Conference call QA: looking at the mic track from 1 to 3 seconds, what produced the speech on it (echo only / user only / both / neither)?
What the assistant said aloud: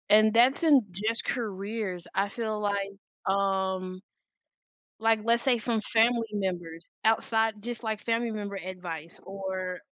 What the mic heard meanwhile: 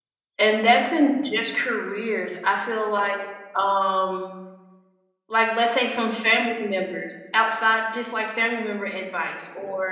echo only